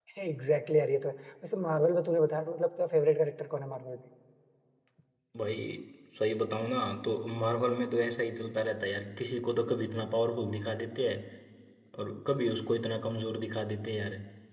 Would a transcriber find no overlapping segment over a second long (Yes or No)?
Yes